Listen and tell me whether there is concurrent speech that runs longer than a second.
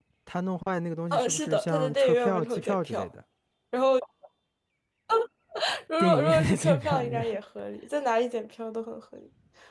Yes, from 1.1 s

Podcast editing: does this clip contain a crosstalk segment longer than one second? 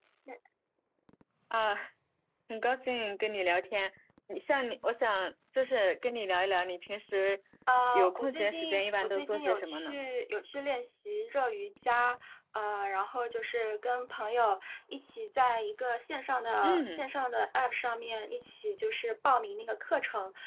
Yes, from 7.9 s

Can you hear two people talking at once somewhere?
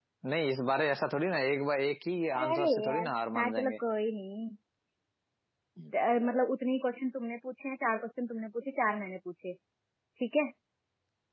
Yes, from 2.3 s

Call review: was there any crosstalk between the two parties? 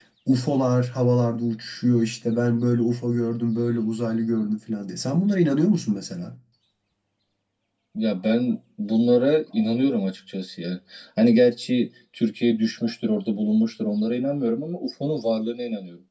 No

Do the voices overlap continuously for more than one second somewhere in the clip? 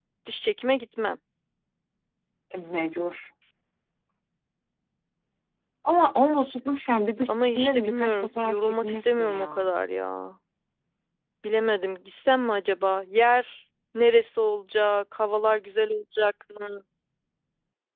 Yes, from 7.2 s

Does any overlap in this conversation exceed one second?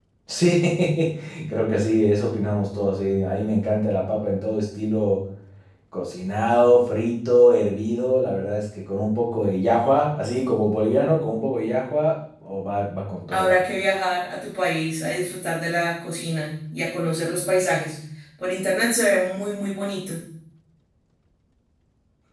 No

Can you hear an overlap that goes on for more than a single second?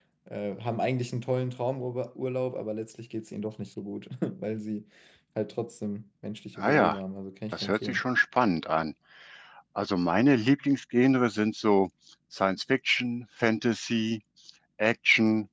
No

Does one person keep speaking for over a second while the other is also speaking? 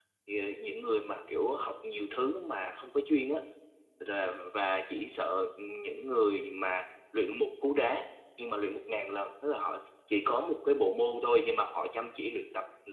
No

